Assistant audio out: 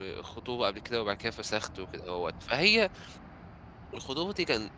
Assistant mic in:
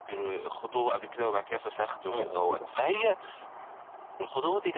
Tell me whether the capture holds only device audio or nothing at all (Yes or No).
No